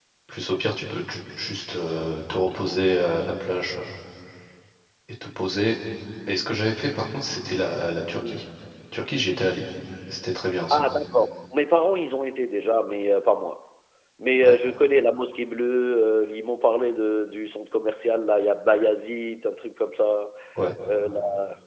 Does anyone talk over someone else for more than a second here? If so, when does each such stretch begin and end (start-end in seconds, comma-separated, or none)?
none